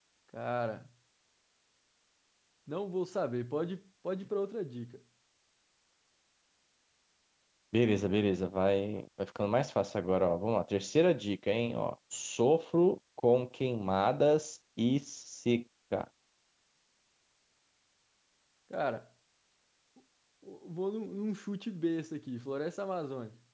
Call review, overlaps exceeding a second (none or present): none